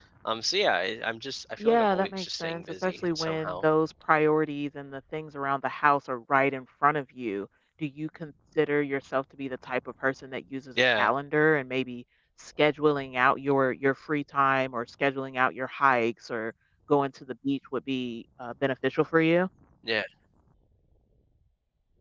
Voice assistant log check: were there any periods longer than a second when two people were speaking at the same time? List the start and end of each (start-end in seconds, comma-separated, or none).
1.6-3.6